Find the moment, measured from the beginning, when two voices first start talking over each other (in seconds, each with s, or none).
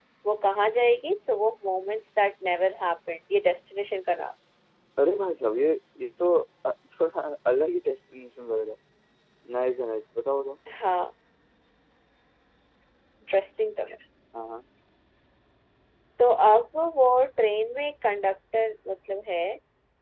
none